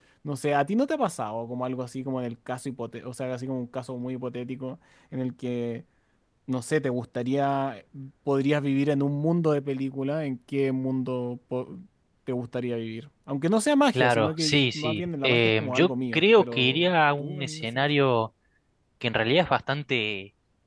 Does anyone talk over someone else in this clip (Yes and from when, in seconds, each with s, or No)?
Yes, from 13.9 s